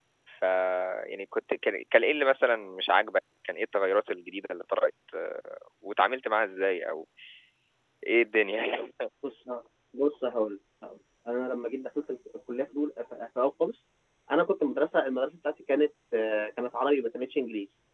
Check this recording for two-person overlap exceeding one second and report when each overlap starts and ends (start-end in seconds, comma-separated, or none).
none